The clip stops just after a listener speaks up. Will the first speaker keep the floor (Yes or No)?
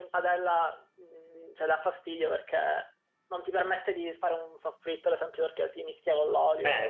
No